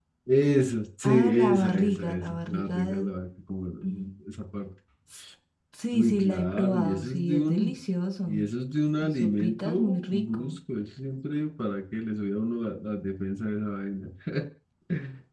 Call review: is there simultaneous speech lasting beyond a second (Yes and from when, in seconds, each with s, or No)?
Yes, from 1.0 s